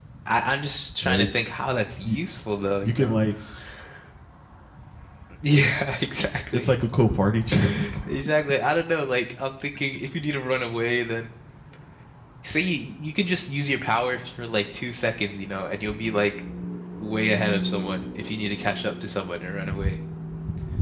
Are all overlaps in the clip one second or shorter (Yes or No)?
Yes